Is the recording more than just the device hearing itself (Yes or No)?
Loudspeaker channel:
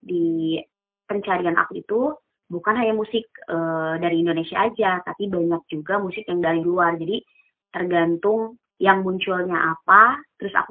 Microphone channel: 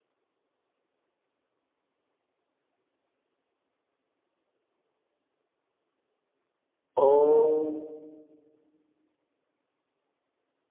Yes